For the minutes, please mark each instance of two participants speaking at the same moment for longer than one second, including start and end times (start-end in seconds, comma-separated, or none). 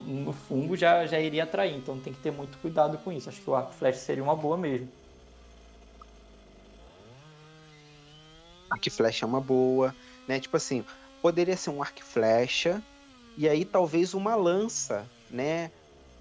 none